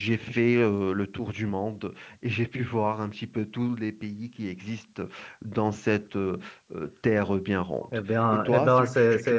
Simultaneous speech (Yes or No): Yes